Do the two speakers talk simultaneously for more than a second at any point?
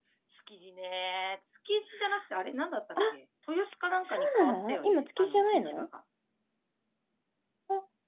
Yes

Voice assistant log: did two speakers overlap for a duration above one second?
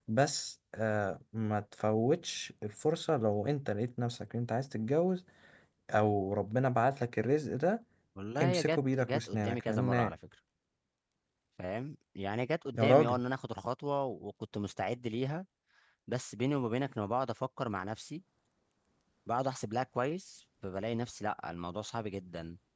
Yes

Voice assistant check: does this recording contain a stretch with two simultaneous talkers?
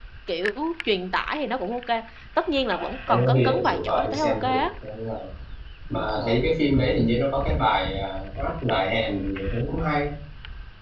Yes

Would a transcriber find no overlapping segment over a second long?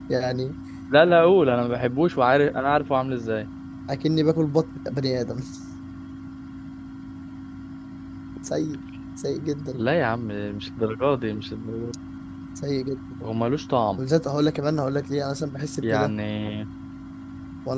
Yes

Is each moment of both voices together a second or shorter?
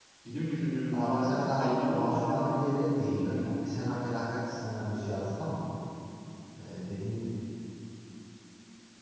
No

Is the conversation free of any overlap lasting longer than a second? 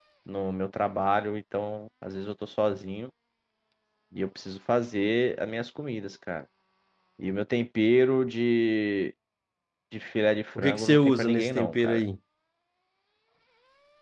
No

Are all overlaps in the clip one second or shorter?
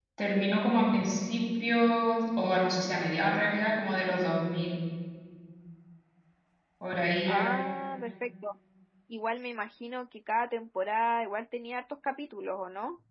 Yes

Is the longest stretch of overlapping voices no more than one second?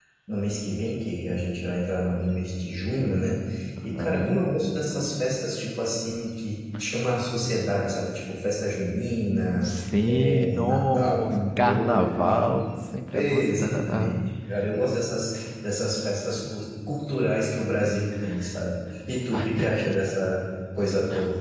No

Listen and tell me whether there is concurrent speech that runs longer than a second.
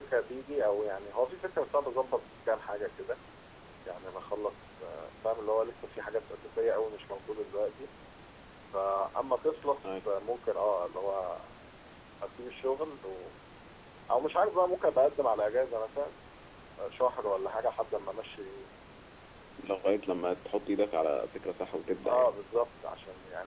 No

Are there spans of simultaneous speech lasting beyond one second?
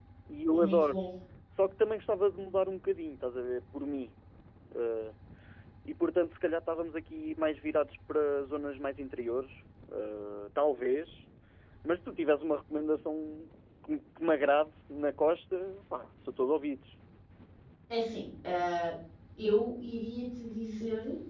No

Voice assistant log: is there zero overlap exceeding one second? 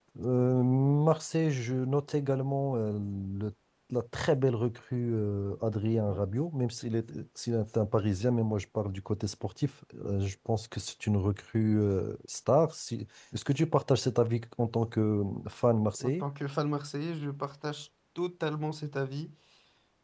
Yes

